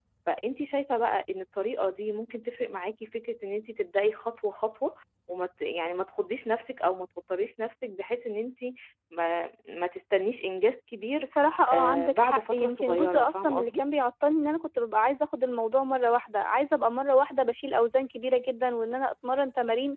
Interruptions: present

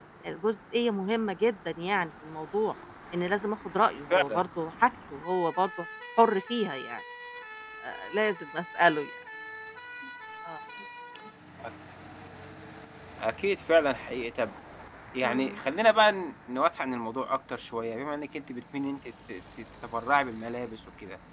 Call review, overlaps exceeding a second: none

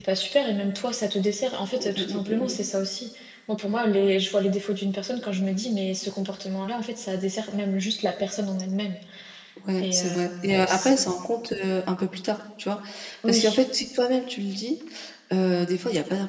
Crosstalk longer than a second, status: present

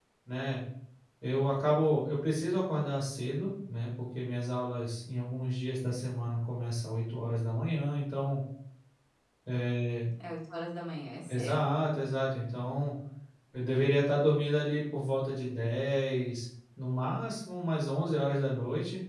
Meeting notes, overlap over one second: none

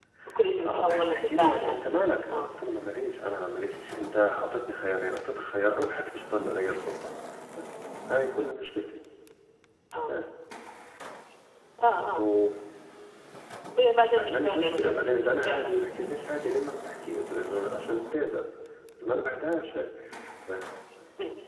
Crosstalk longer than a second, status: present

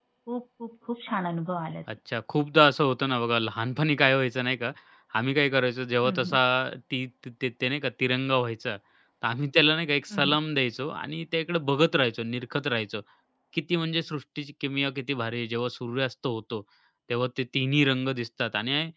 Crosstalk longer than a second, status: none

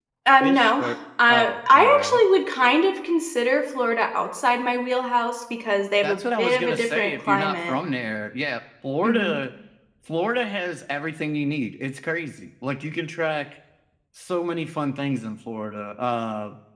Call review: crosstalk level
present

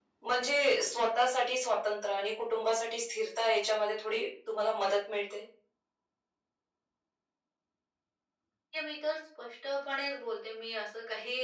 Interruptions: none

